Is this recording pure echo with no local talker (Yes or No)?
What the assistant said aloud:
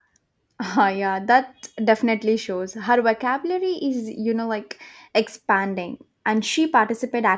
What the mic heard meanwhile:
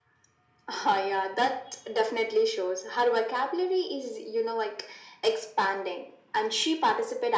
Yes